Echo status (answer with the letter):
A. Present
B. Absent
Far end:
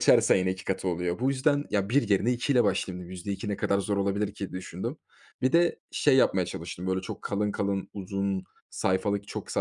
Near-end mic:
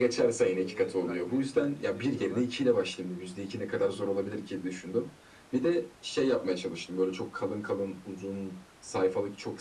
A